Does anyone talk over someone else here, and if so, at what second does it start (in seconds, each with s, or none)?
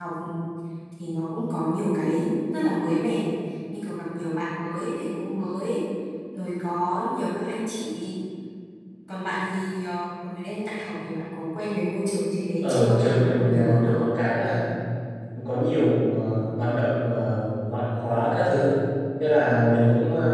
12.6 s